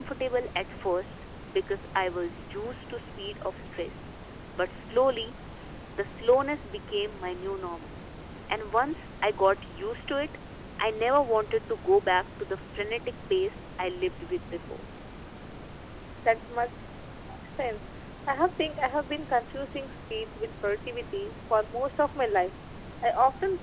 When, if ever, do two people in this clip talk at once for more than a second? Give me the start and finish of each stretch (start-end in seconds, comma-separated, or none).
none